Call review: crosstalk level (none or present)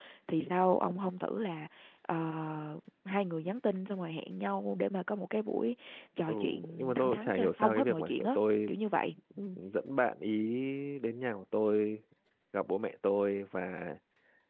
present